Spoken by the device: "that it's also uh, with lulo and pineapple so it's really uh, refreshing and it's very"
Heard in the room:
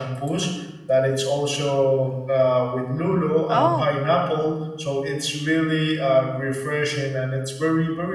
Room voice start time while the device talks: 3.5 s

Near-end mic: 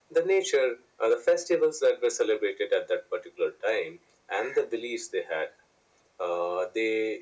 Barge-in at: none

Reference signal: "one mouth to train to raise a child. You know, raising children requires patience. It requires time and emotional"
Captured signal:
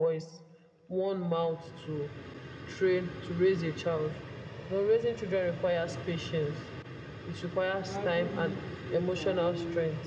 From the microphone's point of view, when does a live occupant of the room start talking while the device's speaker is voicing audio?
7.9 s

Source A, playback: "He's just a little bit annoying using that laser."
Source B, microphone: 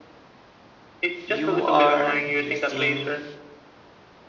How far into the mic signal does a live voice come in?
1.2 s

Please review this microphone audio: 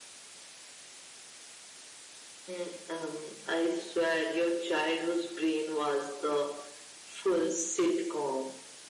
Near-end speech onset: none

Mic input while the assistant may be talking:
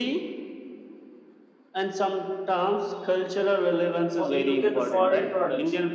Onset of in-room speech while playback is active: 4.1 s

